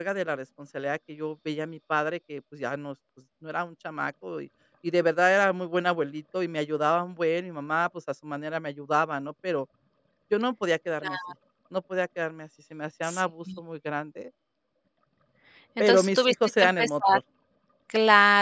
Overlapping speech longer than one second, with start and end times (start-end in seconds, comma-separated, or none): 15.8-17.2